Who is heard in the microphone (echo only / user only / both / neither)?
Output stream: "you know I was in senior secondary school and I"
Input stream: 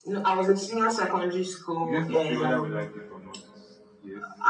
both